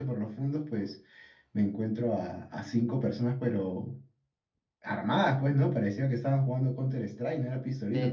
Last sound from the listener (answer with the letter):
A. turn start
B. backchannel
A